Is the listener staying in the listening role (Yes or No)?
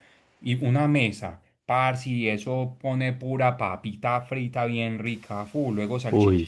Yes